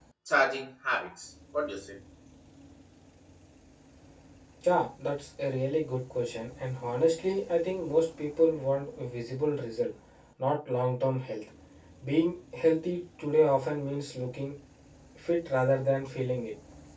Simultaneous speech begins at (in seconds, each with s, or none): none